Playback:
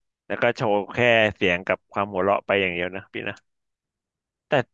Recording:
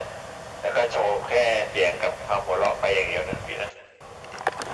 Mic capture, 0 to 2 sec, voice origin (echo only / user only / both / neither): echo only